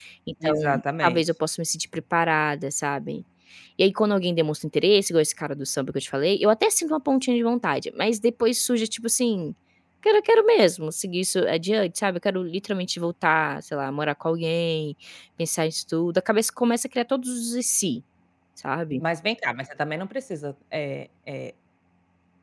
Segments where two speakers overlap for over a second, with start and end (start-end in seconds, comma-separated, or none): none